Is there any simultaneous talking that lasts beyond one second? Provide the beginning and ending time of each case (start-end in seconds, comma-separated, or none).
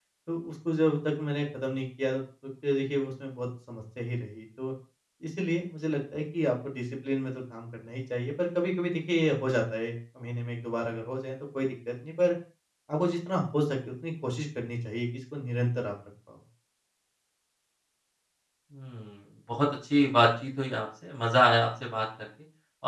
none